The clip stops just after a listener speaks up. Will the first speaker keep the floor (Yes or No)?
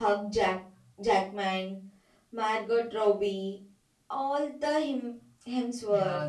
No